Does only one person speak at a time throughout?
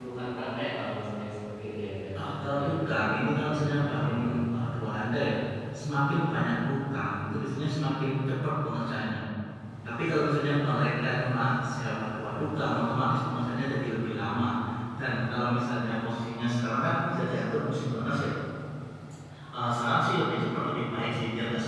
No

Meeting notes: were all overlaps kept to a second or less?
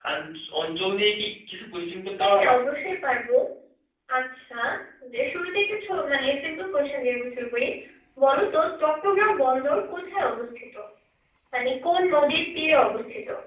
Yes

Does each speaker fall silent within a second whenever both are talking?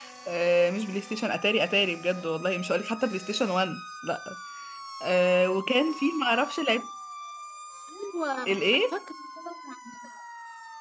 Yes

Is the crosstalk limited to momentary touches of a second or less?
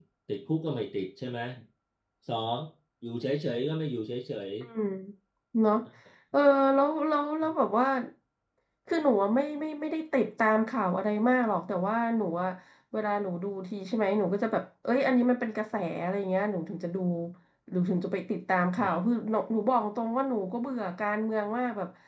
Yes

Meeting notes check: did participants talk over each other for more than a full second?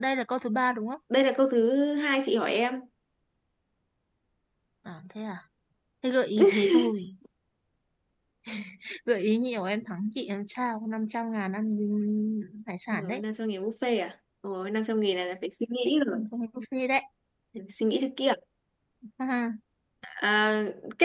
No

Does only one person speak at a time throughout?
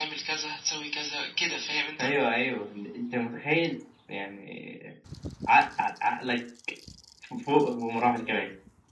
Yes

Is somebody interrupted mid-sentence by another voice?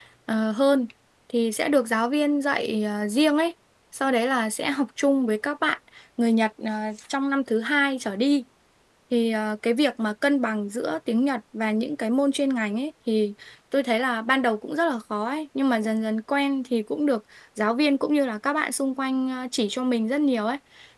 No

